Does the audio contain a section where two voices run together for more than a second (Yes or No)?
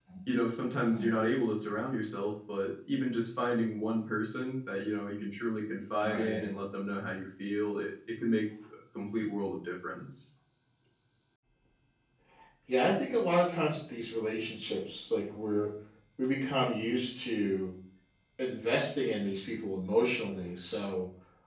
No